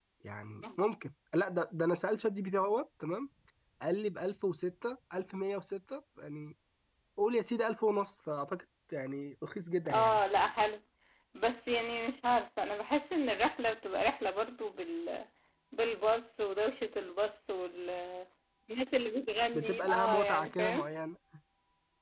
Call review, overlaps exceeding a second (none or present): present